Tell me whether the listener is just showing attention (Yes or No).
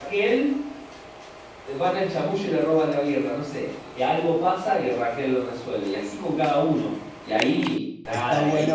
No